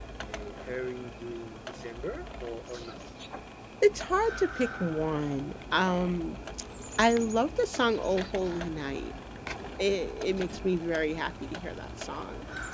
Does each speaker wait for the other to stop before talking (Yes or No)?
Yes